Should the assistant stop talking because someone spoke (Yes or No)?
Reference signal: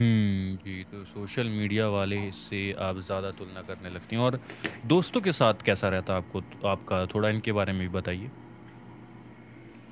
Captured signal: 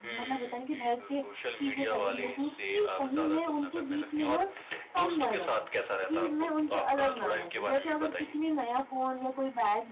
Yes